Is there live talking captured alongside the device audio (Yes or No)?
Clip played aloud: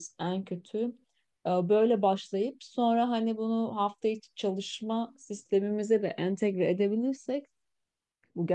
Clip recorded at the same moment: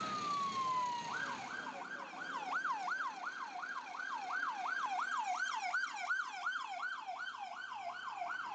No